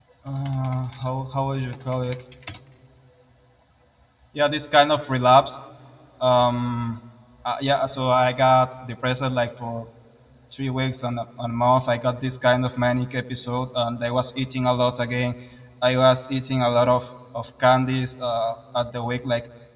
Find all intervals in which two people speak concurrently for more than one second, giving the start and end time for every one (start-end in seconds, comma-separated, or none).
none